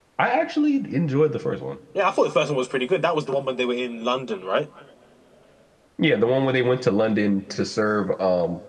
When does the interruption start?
none

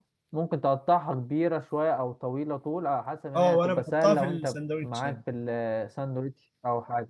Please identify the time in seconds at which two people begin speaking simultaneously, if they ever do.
3 s

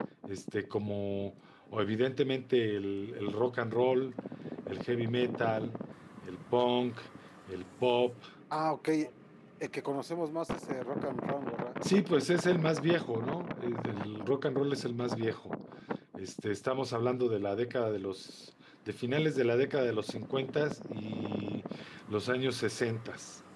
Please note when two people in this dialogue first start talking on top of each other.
none

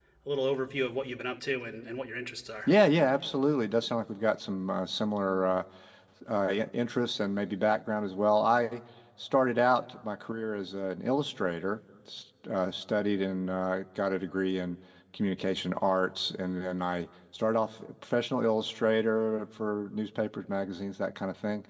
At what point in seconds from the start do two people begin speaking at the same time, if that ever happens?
none

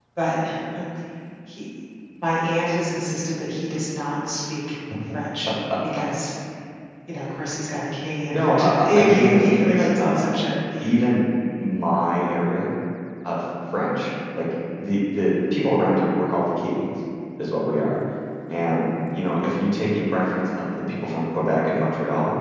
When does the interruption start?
8 s

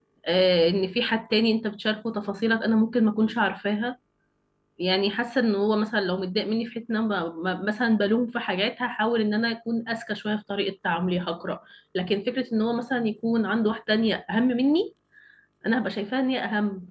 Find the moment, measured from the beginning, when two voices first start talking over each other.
none

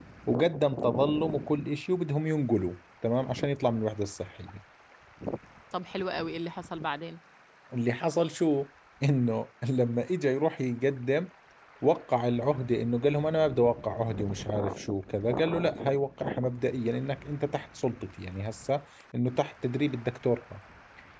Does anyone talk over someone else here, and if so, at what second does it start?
none

